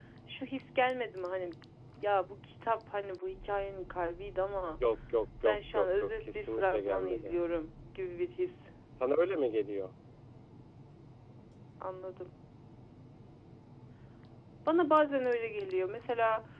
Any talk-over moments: Yes, from 5.4 s

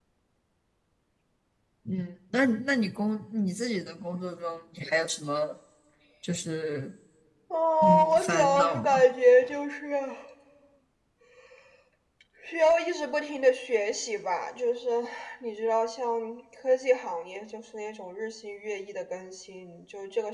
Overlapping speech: Yes, from 7.8 s

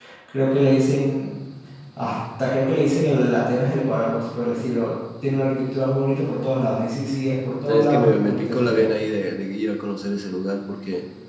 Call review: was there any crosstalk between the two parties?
Yes, from 7.7 s

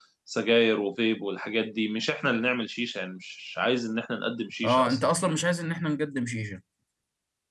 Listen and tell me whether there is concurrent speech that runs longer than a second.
No

